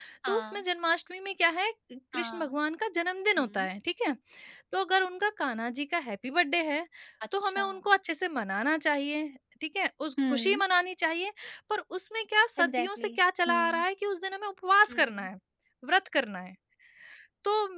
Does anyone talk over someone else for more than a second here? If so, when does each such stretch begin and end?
none

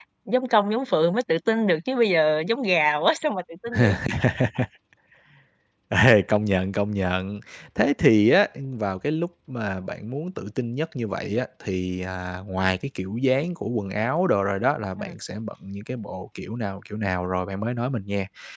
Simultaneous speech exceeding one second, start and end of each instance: none

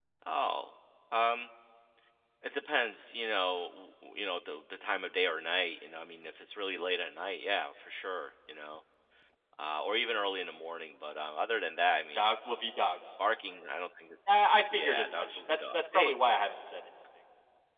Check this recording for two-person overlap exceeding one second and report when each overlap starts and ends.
14.7-16.1

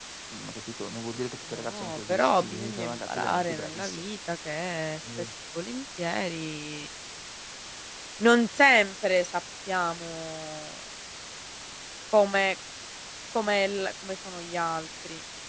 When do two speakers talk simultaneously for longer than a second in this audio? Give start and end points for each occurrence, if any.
1.5-4.1

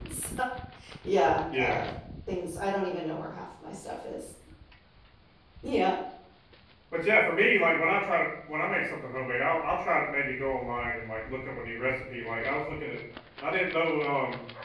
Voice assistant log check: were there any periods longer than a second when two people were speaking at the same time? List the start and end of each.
none

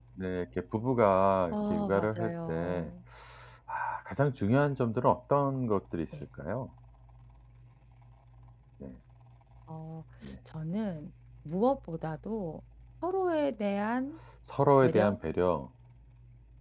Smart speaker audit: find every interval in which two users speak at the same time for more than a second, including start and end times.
1.5-2.9

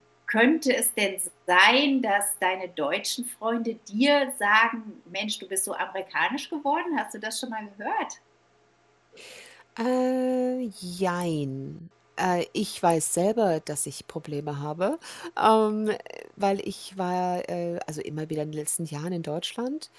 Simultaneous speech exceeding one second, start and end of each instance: none

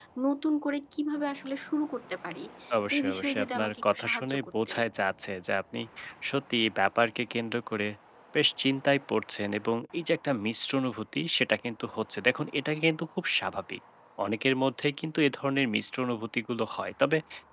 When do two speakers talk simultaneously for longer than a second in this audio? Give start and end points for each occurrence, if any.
3.0-4.8

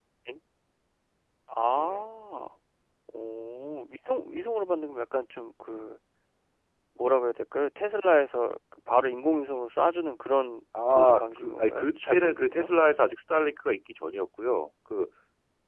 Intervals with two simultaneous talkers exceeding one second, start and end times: 10.9-12.7

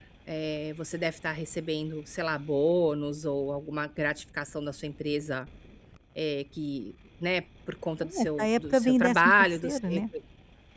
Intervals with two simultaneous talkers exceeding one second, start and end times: 8.0-9.8

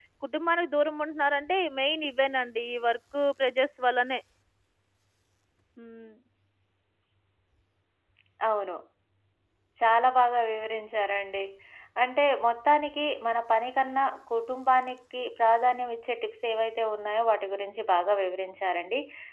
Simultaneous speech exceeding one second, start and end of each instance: none

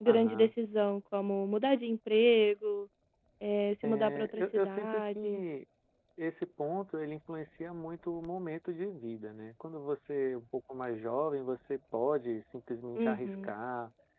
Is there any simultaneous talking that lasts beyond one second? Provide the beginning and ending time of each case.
3.8-5.4

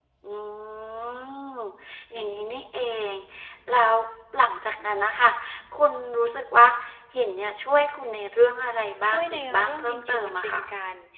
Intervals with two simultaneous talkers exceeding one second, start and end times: 9.1-10.7

